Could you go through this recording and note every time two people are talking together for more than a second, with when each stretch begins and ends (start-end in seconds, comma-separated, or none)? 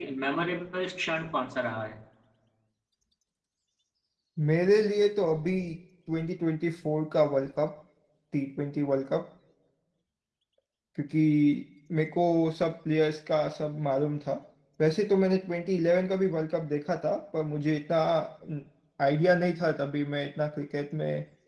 none